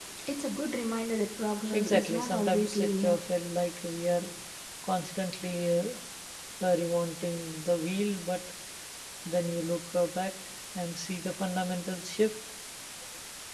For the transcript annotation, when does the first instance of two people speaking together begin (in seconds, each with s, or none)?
1.7 s